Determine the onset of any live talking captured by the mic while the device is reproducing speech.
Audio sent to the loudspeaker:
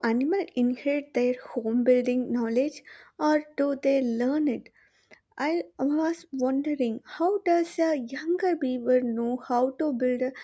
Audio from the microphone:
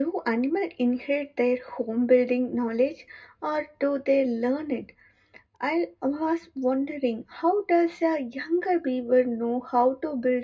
none

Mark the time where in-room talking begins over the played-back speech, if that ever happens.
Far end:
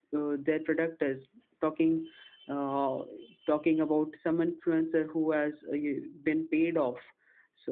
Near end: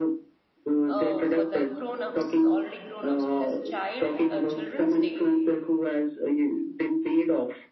0.9 s

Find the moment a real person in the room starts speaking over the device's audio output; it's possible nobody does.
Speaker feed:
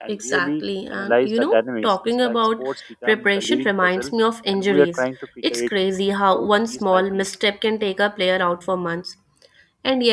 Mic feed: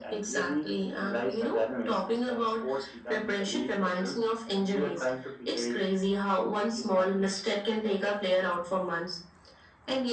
none

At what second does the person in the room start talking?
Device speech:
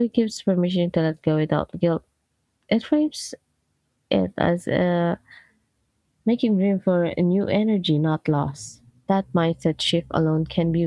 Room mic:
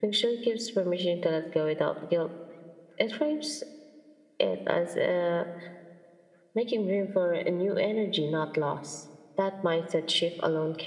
none

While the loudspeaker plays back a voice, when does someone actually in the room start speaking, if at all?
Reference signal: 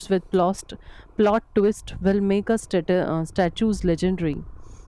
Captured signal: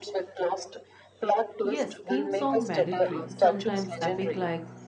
1.6 s

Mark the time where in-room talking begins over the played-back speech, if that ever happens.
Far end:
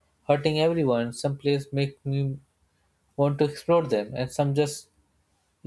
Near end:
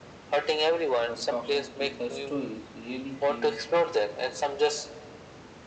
1.0 s

